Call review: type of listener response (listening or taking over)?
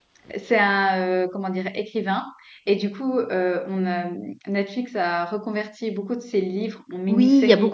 taking over